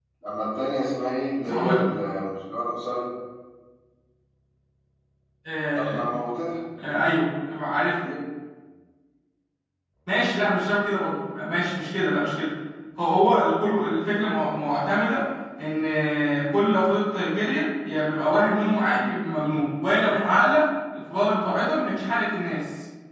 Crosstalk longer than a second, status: none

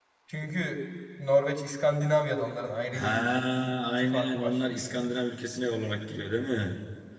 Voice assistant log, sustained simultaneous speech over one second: present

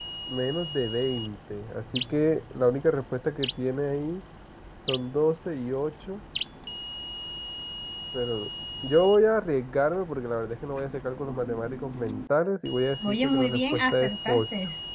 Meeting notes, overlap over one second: present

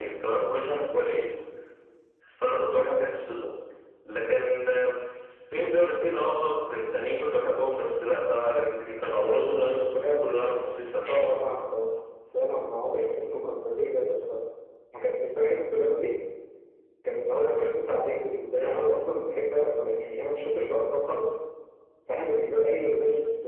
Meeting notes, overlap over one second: none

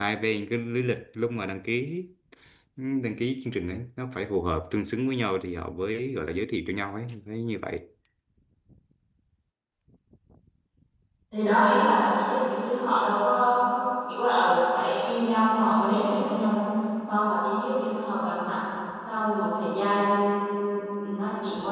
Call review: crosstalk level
none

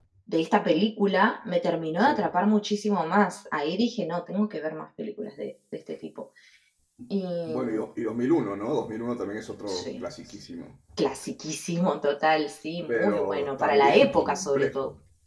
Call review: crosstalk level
present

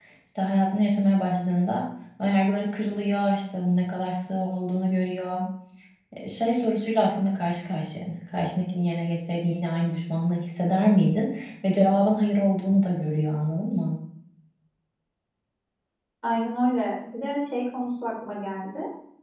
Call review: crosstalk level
none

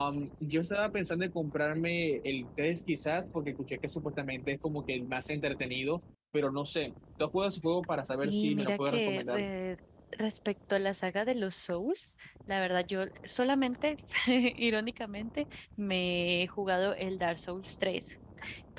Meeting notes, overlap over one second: present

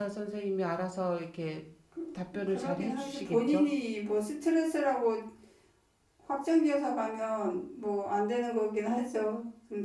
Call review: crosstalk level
present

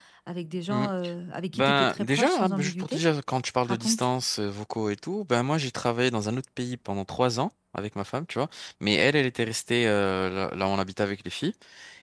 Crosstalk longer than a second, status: present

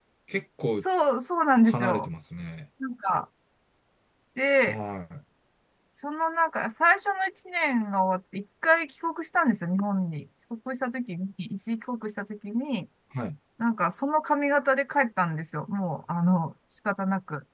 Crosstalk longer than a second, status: none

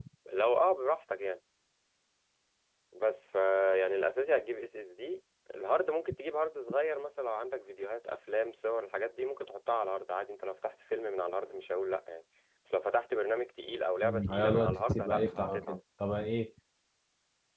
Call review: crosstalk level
present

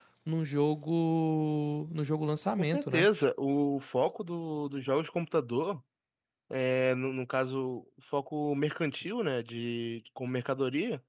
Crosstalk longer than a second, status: none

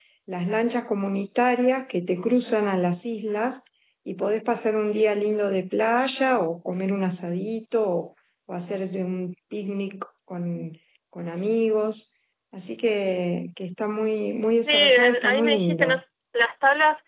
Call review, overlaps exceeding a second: present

